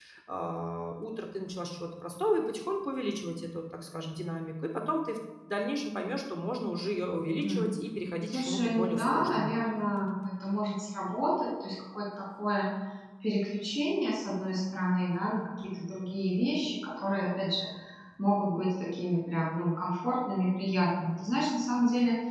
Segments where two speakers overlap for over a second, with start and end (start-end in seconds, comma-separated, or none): 8.3-9.5